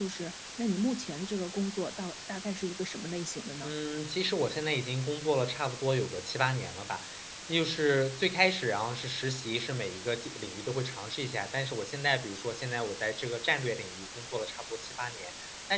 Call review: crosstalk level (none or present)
none